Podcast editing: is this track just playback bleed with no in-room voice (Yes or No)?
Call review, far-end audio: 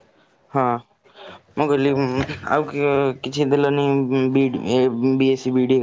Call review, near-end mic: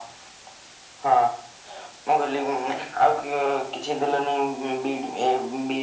Yes